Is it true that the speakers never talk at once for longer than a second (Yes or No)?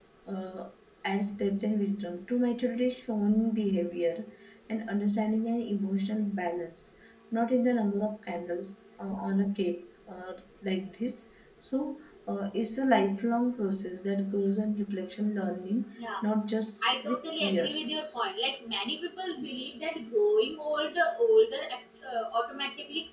No